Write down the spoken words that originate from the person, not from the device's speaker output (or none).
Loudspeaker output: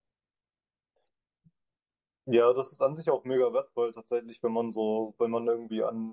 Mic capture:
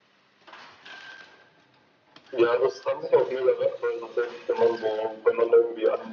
none